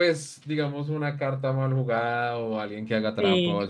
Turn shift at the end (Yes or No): No